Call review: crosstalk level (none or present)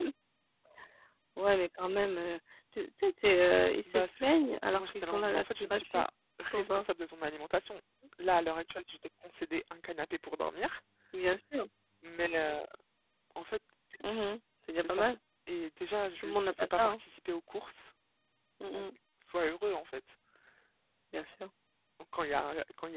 present